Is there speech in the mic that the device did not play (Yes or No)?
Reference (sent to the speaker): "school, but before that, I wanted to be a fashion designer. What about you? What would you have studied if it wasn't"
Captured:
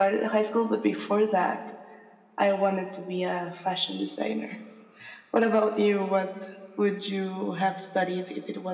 No